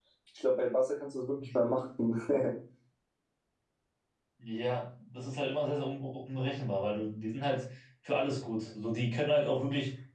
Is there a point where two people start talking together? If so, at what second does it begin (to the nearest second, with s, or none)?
none